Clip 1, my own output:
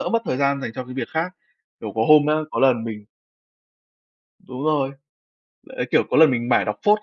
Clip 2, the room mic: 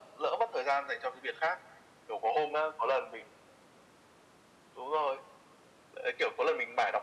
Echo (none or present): present